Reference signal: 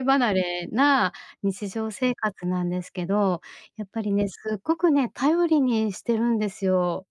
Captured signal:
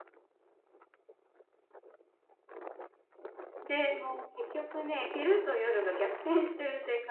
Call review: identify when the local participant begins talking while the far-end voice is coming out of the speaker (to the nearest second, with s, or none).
4 s